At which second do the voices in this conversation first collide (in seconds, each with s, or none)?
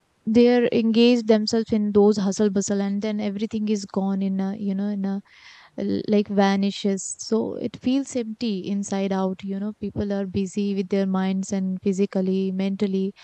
none